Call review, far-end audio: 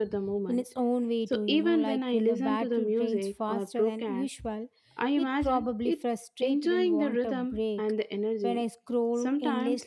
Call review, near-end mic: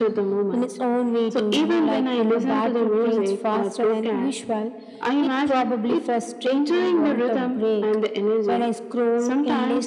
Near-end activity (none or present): none